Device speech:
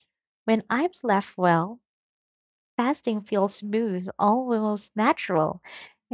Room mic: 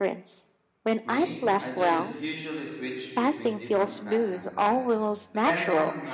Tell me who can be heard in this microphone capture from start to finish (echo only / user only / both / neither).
both